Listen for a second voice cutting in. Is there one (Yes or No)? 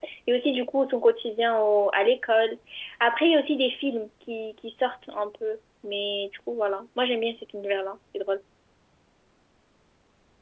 No